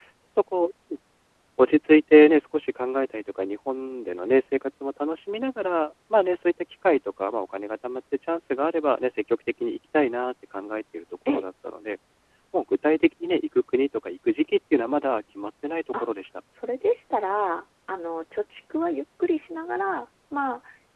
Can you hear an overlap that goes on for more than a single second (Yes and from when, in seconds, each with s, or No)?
No